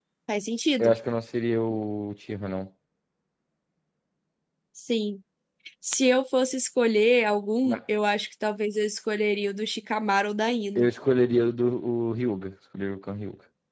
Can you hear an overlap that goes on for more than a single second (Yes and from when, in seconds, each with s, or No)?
No